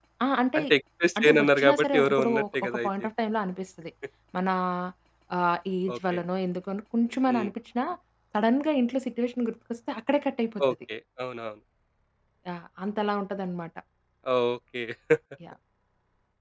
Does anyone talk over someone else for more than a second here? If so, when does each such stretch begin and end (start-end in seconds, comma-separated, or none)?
1.2-2.9